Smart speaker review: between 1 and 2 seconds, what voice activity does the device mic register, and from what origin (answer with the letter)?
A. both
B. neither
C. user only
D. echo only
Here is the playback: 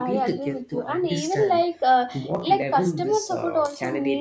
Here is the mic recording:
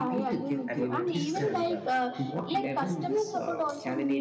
A